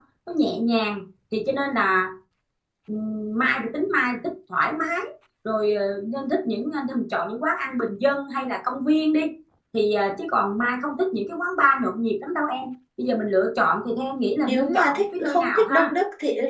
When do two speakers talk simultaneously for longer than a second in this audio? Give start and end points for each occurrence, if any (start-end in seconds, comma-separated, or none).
14.4-15.9